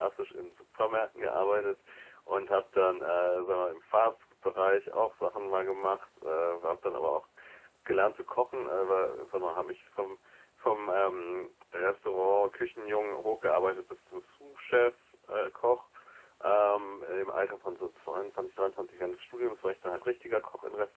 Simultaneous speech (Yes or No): No